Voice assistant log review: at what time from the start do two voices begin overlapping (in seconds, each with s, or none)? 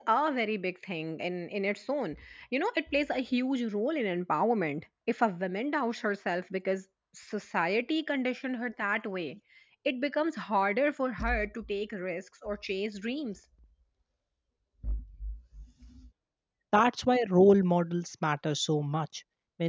none